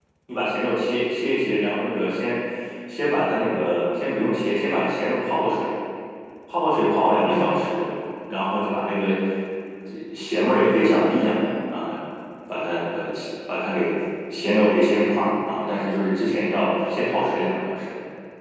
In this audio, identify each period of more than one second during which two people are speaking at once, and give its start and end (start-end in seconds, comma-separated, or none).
none